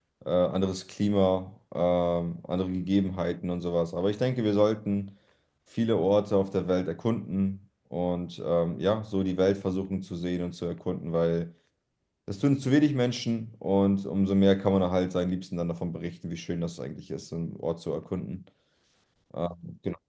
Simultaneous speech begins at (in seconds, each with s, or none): none